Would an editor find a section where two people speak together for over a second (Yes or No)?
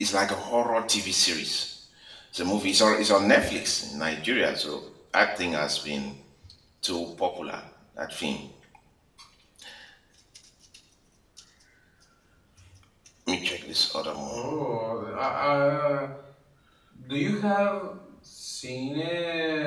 No